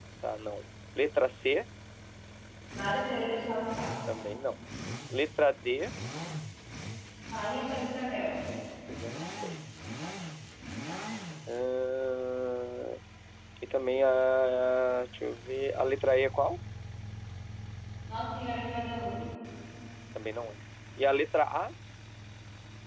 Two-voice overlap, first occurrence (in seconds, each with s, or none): none